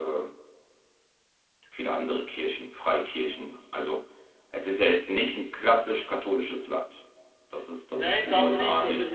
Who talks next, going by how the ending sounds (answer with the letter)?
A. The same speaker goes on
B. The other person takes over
B